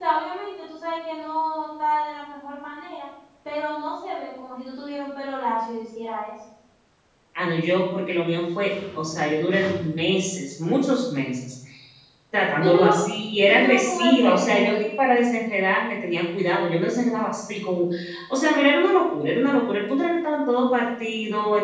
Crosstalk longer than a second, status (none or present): present